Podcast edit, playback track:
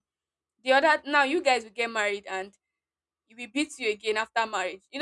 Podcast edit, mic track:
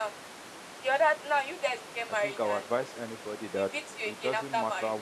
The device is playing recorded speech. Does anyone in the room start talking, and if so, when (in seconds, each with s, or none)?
2.1 s